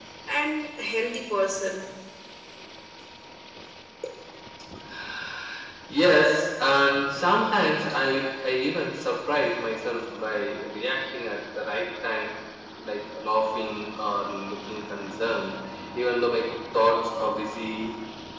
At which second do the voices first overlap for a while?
none

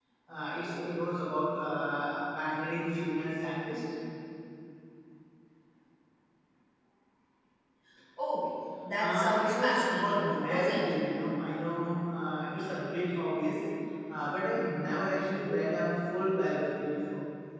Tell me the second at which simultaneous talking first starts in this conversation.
9.0 s

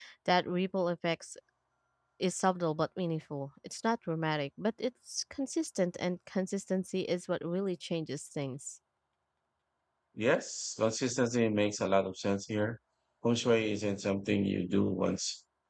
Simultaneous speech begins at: none

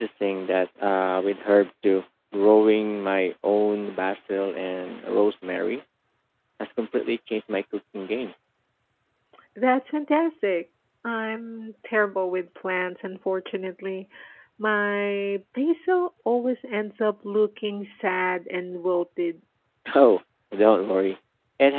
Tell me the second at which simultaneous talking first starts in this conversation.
none

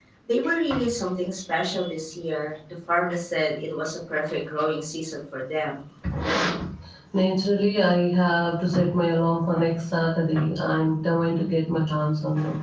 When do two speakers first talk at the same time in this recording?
none

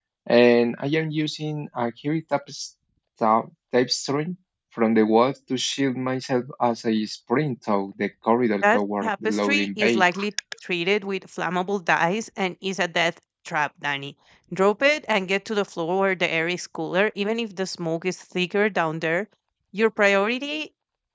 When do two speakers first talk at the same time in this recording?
8.6 s

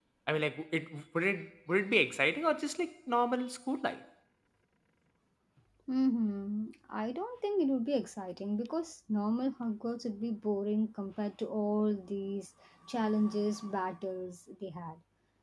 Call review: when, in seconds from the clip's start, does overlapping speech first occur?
none

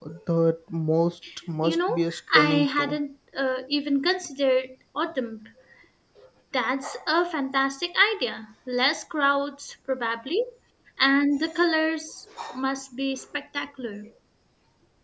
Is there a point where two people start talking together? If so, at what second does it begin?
1.6 s

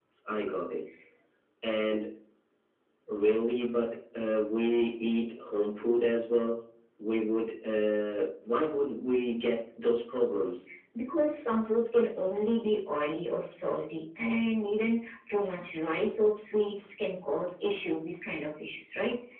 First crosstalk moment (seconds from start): none

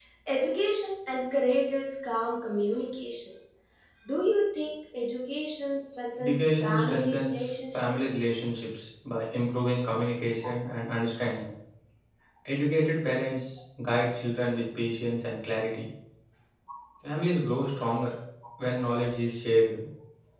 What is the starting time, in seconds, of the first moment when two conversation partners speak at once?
6.2 s

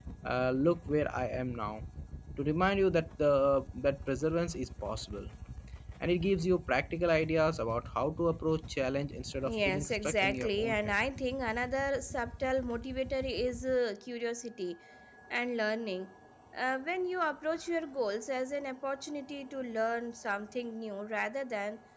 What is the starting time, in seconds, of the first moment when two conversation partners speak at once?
9.4 s

